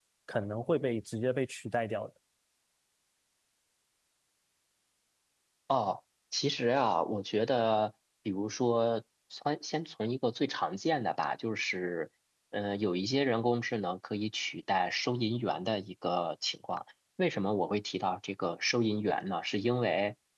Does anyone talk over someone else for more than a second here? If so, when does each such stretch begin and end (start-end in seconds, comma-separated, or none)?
none